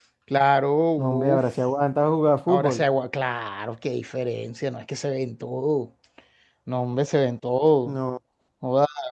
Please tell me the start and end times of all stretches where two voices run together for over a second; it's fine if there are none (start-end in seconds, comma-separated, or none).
none